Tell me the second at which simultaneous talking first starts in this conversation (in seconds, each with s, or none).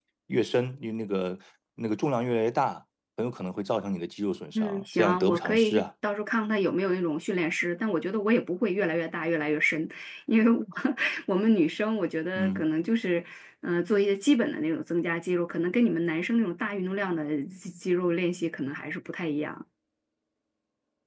4.5 s